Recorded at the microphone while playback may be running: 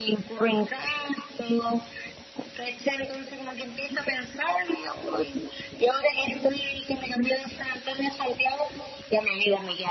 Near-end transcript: none

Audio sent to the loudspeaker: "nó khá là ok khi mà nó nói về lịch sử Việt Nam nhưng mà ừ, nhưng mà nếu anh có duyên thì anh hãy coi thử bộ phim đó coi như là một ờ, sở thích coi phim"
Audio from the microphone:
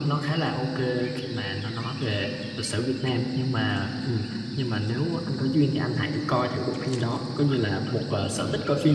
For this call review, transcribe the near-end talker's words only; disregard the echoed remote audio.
none

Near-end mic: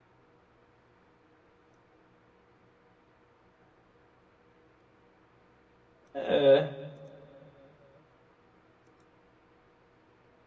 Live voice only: É.

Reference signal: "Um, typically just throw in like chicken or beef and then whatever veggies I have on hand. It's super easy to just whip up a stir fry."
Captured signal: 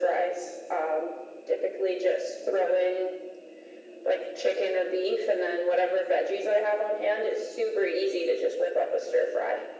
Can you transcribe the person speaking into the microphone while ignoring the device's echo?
none

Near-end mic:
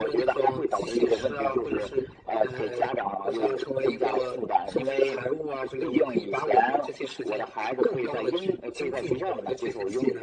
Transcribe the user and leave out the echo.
none

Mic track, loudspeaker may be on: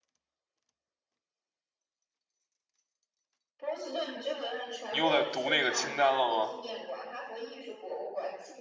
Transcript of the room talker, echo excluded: 你又在读那个清单了吗？

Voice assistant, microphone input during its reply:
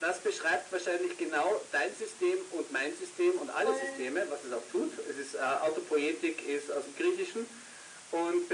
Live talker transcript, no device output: wollen.

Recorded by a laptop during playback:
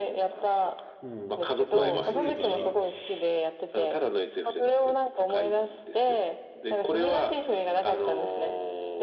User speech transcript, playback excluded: うん。まあ面白いから、

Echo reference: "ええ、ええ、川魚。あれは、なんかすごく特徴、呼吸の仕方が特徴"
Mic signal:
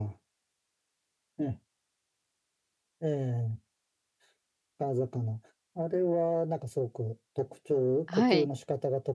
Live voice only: はい。

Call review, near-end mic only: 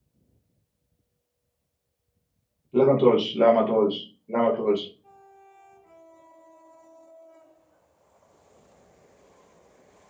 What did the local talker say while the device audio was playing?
لا ما تقولش لا ما تقولش لا ما تقولش

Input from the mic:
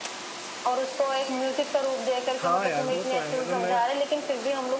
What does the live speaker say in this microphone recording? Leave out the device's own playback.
हाँ यार वो तो है मतलब मैं

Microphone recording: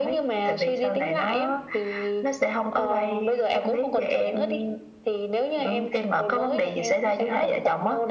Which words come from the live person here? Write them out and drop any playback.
none

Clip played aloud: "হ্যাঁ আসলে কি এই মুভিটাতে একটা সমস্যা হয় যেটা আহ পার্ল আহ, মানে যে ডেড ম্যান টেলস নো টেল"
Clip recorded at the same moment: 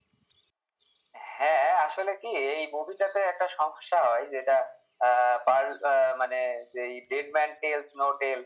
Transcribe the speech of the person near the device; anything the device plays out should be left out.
none

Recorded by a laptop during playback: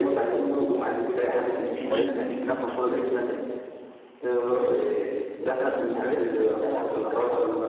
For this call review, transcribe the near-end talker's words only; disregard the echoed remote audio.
بس ميته جميلة يعني.

